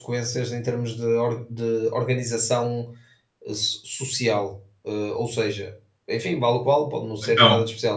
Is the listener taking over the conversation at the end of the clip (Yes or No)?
No